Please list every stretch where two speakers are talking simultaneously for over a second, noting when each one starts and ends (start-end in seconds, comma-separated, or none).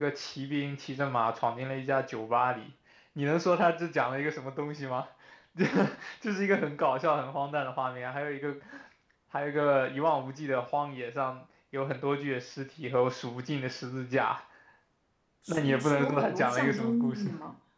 15.5-17.3